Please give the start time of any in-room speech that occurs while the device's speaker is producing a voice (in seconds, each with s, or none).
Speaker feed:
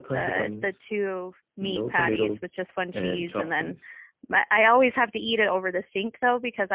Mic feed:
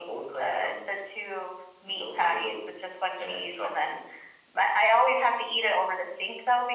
none